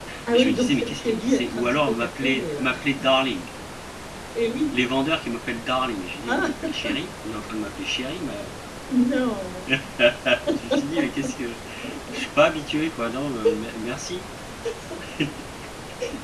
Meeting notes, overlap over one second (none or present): present